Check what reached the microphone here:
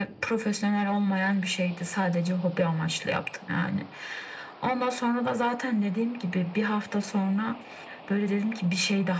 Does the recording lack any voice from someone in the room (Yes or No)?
Yes